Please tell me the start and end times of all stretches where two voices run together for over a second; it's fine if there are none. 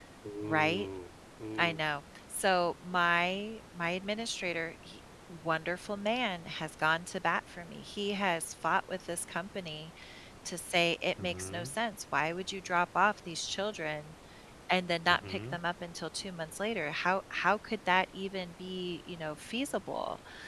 none

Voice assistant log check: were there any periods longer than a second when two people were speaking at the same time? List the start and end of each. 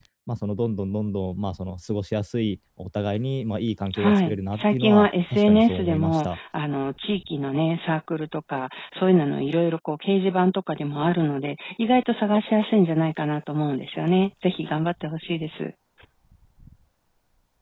3.9-6.4

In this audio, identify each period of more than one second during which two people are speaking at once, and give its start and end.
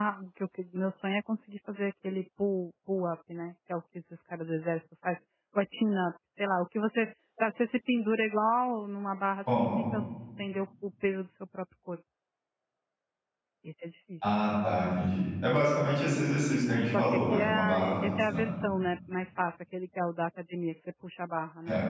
16.9-18.5

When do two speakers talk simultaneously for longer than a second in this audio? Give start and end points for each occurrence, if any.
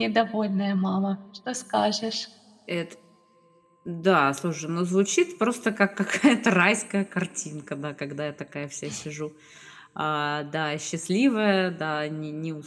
none

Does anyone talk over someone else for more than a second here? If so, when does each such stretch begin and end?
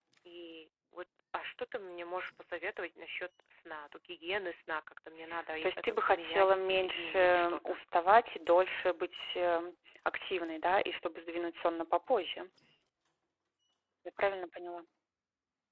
5.6-7.8

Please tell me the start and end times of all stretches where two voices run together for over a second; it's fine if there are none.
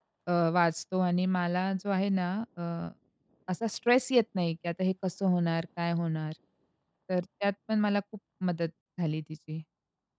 none

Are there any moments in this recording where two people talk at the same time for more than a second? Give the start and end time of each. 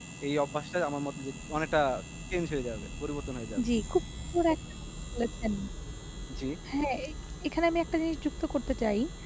none

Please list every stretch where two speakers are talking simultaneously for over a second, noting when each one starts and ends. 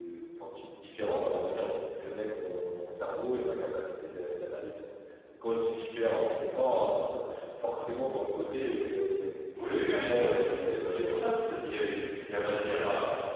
9.8-12.1

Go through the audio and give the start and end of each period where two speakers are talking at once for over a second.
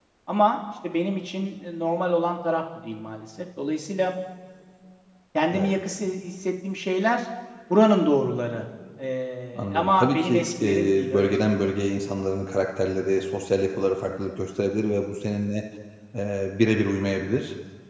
9.6-11.6

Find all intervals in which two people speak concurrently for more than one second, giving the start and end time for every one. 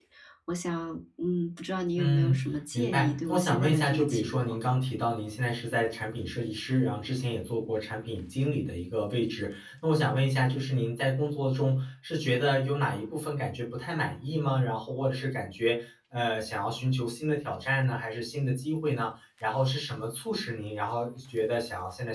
2.0-4.6

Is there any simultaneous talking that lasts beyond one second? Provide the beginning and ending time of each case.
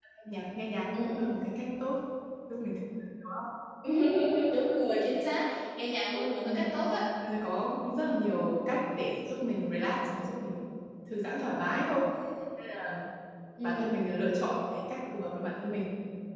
none

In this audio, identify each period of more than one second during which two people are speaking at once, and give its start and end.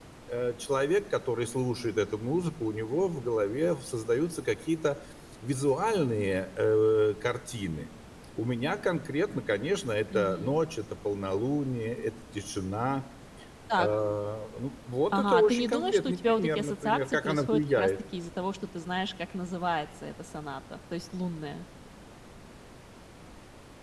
15.1-17.9

